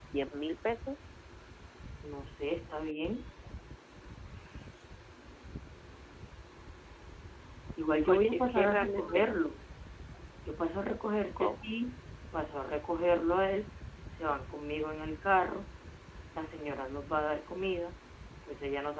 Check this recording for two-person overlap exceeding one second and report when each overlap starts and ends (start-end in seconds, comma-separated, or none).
8.1-9.3